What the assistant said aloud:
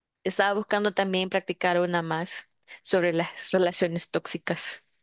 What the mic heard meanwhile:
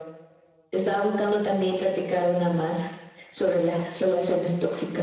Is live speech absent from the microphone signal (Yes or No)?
Yes